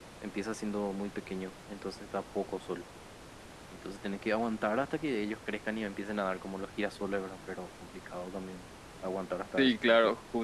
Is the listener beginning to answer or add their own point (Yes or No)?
Yes